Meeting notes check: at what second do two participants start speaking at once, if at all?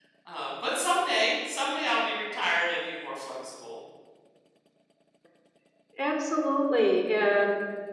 none

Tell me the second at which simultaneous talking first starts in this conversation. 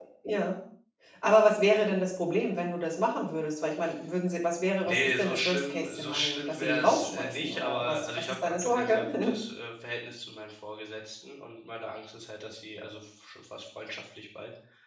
5 s

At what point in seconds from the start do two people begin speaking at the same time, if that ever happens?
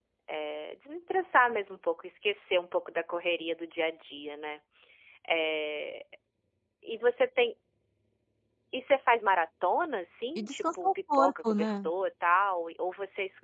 10 s

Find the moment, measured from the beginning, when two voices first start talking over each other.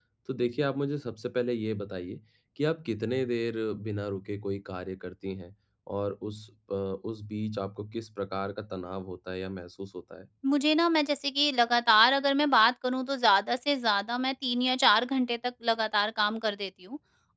none

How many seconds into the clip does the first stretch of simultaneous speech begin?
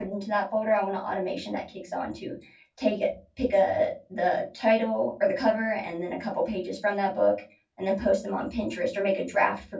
none

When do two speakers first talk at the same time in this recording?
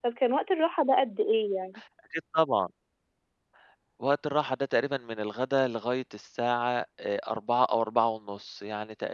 none

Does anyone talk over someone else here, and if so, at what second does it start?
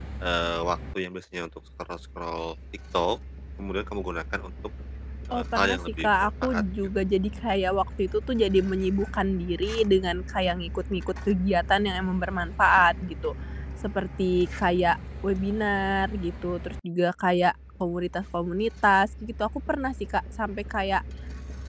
5 s

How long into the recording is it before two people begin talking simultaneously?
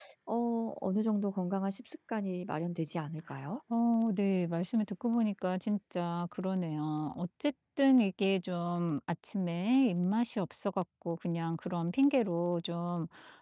none

